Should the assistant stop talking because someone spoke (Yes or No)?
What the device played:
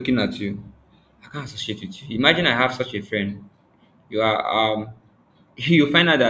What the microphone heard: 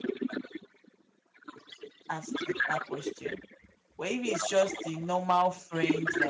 Yes